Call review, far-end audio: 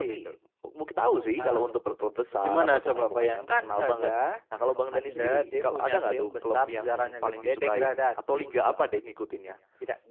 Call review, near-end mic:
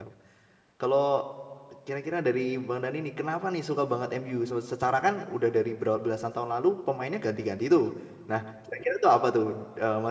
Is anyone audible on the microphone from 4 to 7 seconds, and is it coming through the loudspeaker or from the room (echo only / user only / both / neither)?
user only